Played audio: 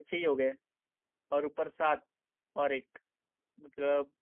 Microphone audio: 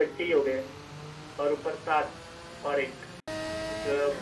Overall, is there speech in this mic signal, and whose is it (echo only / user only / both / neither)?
echo only